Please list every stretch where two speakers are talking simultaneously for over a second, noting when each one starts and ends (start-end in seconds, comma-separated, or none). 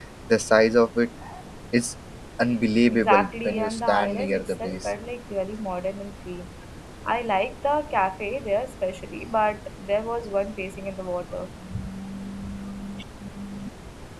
2.9-4.9